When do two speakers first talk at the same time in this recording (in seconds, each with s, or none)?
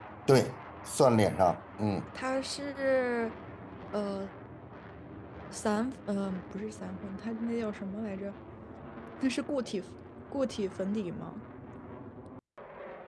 none